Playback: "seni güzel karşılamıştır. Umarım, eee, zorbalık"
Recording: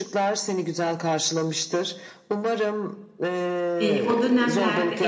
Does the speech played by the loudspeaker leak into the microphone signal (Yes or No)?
Yes